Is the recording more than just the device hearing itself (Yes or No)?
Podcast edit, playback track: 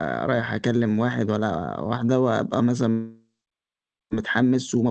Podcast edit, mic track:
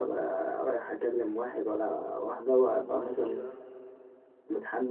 Yes